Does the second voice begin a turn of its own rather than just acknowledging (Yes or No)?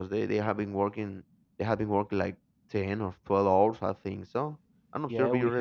Yes